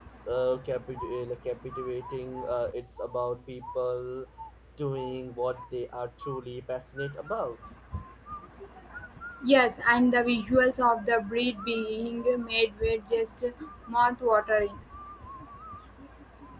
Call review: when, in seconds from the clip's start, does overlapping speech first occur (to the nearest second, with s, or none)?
none